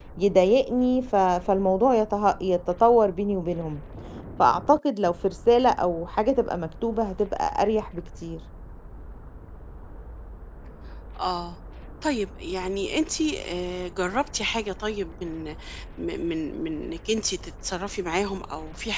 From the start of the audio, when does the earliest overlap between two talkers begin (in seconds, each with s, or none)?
none